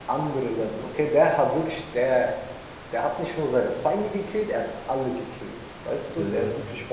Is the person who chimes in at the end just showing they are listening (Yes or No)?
Yes